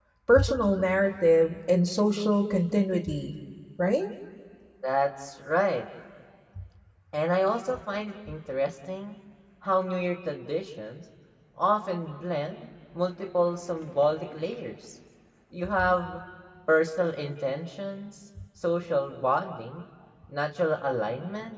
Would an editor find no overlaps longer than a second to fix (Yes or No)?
Yes